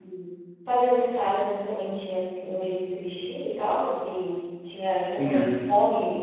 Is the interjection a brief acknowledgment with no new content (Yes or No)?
Yes